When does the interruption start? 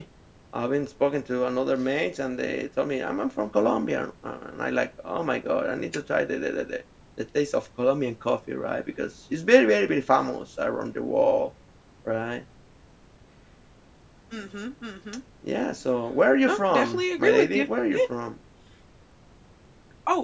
16 s

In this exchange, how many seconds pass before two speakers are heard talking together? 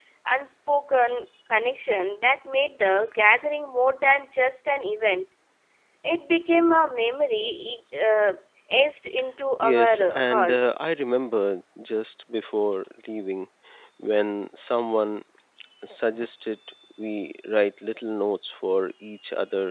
10 s

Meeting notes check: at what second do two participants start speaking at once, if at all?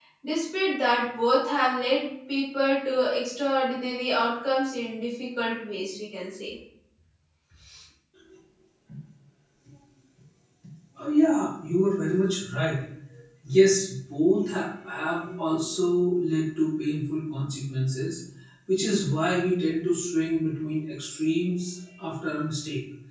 none

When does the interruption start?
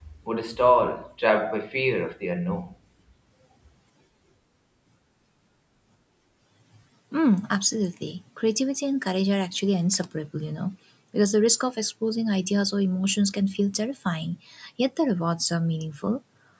none

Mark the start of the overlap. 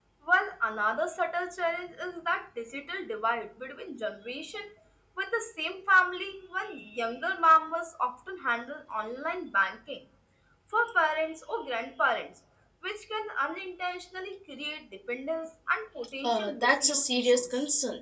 16 s

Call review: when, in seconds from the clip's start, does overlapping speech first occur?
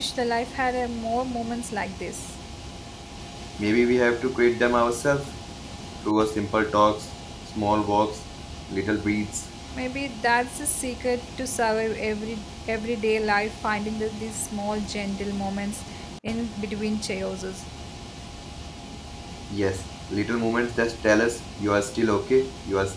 none

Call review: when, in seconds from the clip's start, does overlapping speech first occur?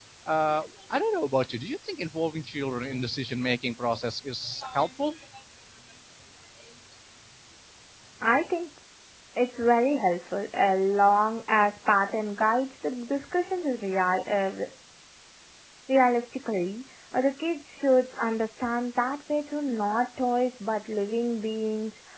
none

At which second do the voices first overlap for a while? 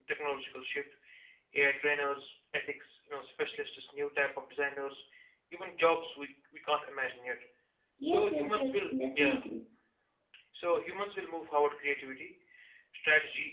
8 s

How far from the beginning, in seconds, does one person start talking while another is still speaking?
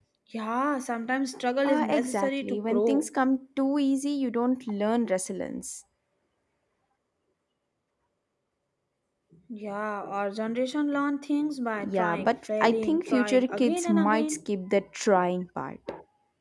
2 s

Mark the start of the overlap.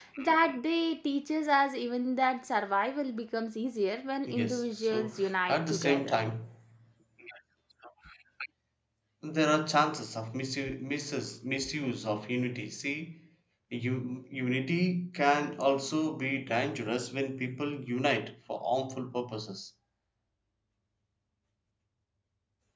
4 s

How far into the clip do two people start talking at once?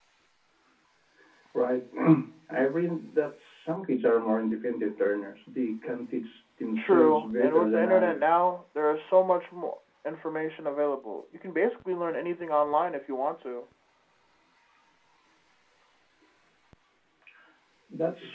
7 s

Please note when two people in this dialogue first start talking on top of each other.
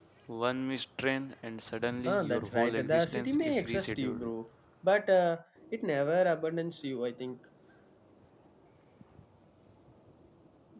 2 s

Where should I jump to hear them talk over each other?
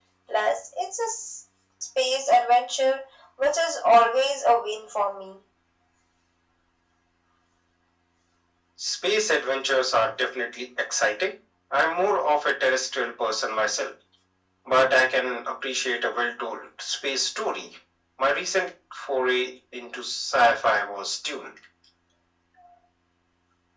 none

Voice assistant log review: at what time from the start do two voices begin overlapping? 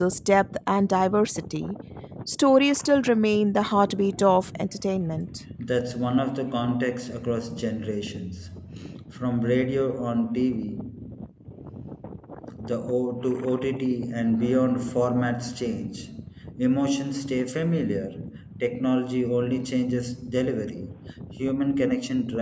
none

